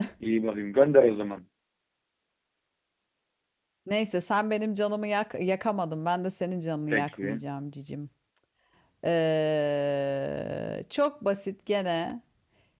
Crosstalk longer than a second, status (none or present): none